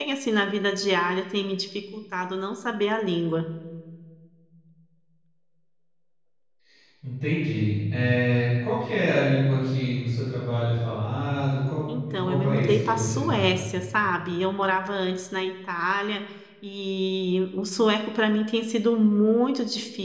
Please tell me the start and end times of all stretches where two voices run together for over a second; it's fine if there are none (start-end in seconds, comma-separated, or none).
12.1-13.5